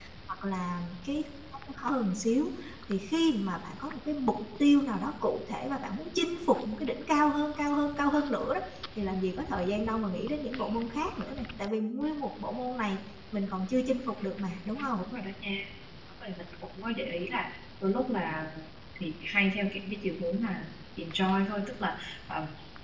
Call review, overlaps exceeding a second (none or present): none